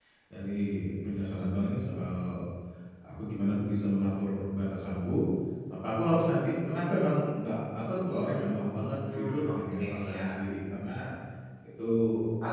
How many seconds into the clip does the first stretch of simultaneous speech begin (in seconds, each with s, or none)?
9.1 s